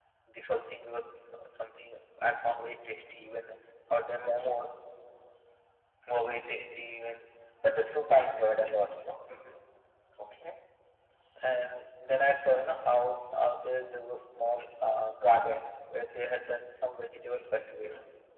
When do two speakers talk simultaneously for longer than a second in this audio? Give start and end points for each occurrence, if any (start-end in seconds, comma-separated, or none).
none